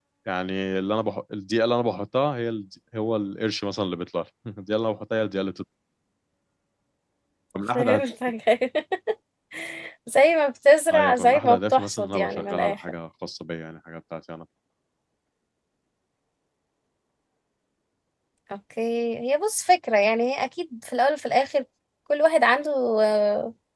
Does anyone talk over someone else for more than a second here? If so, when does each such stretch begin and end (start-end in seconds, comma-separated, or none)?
10.9-12.8